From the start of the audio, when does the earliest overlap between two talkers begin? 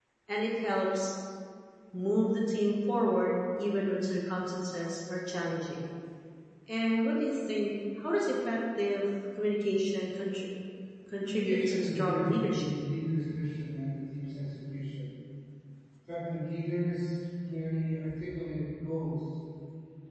11 s

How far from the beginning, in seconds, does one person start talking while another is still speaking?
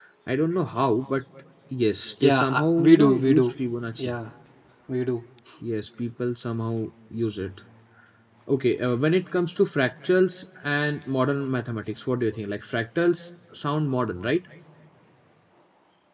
2 s

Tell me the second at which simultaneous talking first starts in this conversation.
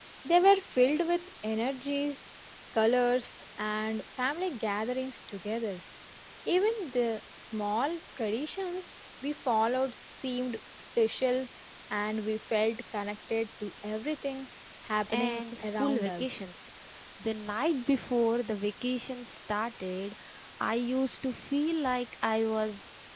15 s

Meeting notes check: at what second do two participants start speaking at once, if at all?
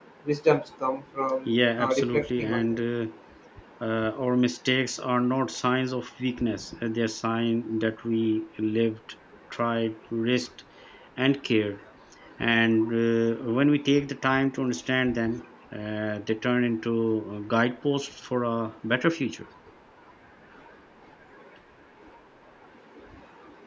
1 s

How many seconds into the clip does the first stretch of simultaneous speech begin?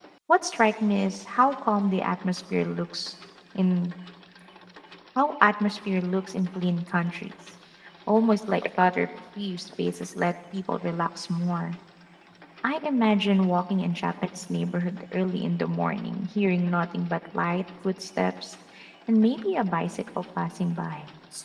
none

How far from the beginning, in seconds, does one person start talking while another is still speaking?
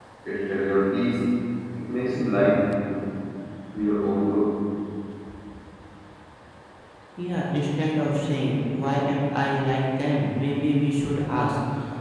none

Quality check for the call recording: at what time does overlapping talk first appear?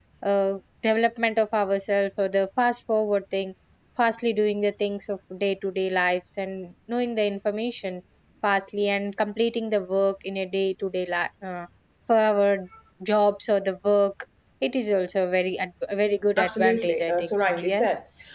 16 s

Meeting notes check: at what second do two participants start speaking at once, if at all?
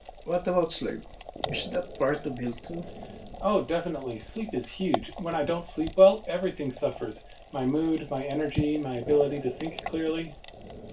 none

